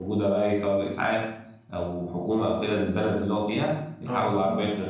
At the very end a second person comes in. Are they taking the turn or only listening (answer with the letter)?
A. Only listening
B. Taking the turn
A